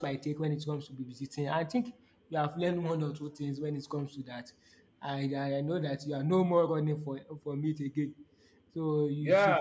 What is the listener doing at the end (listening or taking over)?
taking over